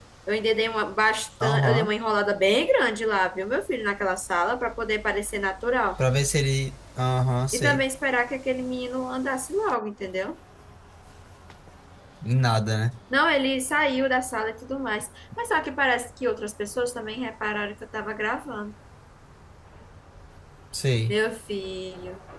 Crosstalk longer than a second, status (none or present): none